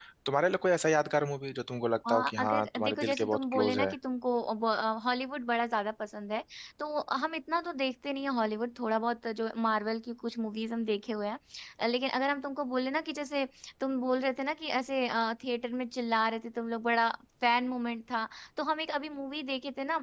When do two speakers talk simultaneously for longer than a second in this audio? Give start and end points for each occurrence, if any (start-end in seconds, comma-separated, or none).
2.1-4.0